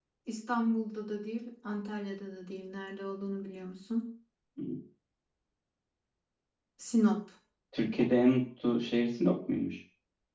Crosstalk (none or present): none